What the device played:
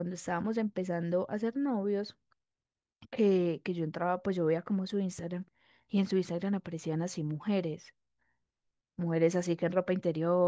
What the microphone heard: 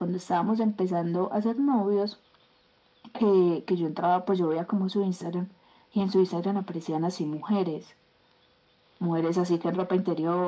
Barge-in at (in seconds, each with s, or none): none